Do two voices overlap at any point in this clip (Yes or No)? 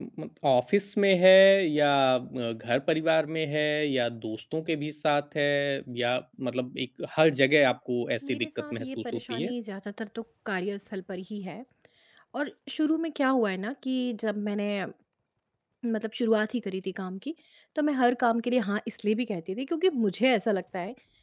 Yes